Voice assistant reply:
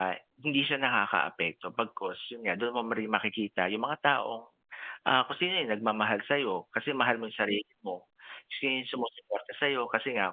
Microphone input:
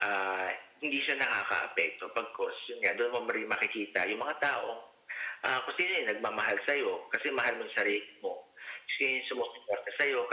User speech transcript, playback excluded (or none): none